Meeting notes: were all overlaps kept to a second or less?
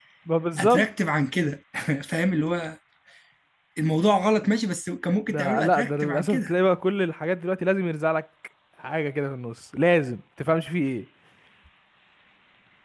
No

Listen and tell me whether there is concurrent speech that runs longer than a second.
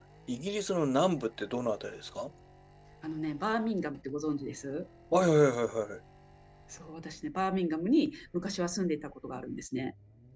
No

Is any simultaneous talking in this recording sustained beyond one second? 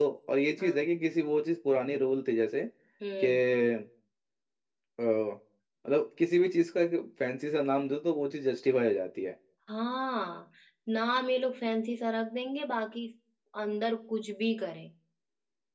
No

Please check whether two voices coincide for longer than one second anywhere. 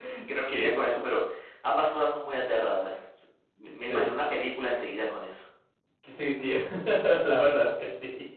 No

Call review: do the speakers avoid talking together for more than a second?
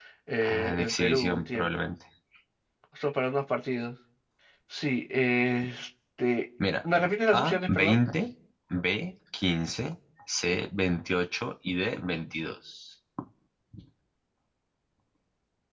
No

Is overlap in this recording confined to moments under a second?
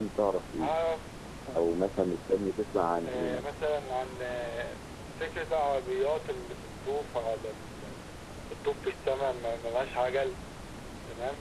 Yes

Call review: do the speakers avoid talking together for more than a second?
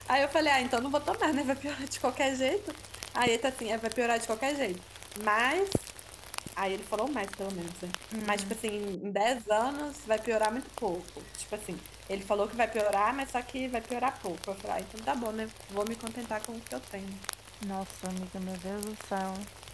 Yes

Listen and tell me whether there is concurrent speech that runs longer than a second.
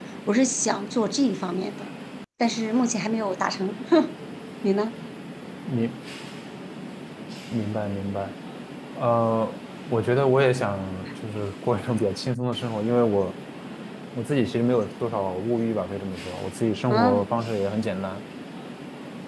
No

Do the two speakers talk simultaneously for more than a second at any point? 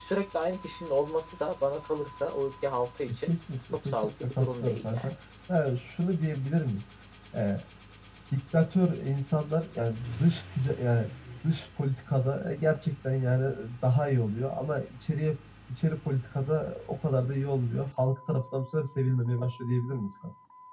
Yes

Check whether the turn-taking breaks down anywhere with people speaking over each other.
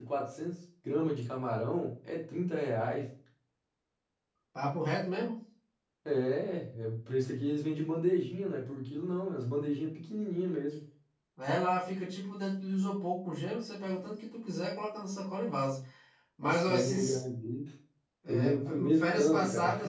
Yes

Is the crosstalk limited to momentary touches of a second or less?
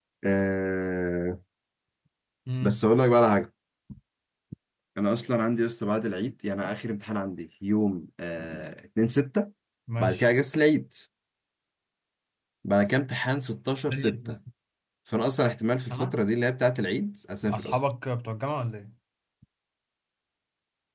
Yes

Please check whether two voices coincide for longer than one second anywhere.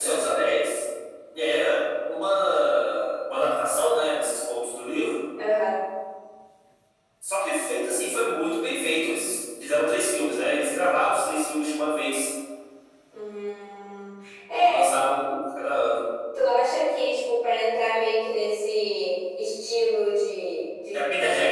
No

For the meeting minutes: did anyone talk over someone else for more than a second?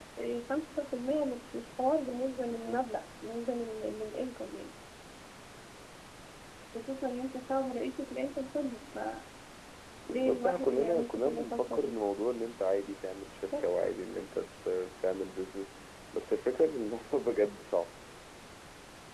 Yes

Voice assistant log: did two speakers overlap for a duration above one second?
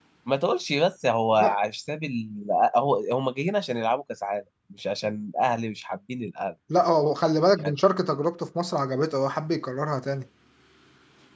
No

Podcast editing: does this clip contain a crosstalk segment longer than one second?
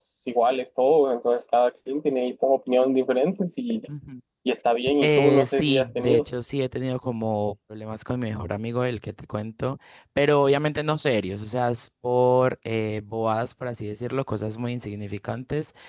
Yes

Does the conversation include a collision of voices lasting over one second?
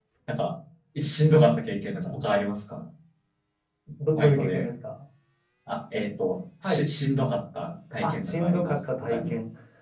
Yes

